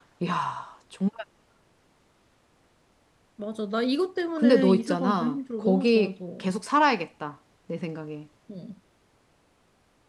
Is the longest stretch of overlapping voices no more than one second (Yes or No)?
No